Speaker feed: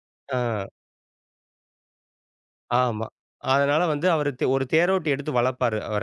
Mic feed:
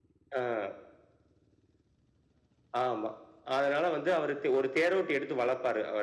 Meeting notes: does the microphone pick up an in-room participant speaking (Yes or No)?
No